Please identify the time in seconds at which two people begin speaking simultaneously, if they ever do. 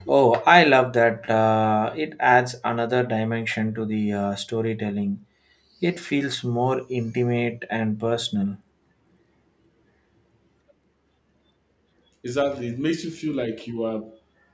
none

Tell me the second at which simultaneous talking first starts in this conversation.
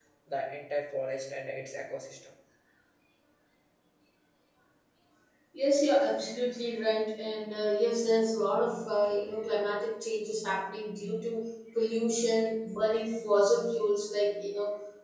none

